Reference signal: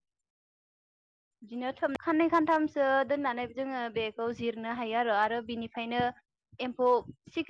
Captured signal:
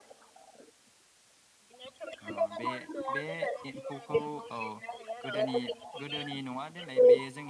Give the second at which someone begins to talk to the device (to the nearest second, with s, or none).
2 s